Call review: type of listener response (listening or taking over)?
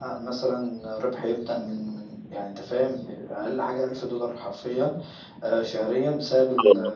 listening